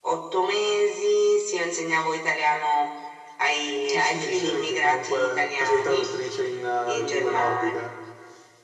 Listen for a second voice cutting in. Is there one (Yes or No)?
Yes